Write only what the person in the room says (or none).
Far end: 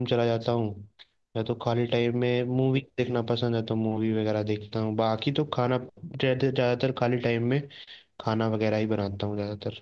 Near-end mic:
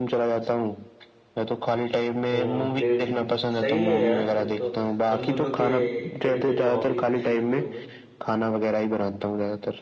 हाँ फिर सही है यार फिर तो हम दोनों के एक तरीके से हॉबीज भी सेम ही हो गई